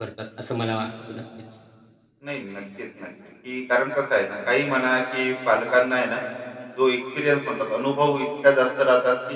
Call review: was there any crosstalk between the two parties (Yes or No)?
No